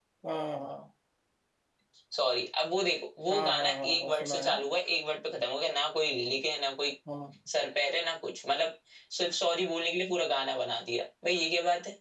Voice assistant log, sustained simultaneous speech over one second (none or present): present